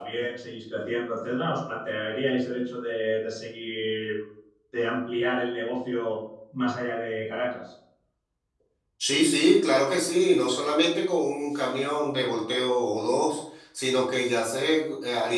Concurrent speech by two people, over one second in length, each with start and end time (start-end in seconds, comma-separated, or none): none